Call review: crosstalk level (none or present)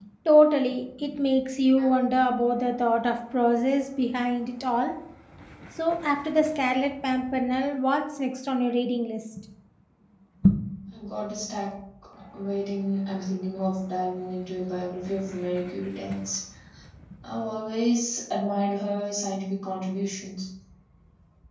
none